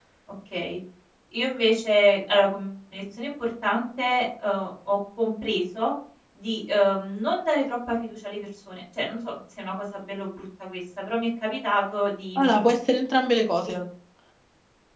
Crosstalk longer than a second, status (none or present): none